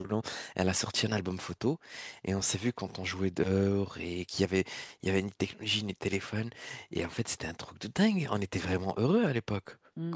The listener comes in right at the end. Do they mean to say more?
Yes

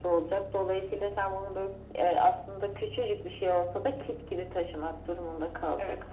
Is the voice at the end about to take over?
Yes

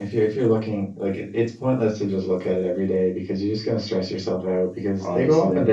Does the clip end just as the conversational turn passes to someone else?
No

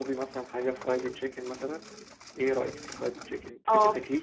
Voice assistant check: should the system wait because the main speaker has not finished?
No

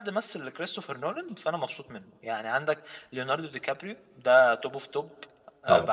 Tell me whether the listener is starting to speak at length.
No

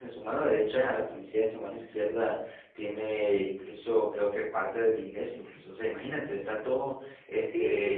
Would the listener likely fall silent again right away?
No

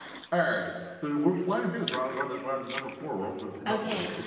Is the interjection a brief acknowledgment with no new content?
No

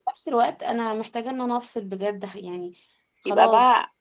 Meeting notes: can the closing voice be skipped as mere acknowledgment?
No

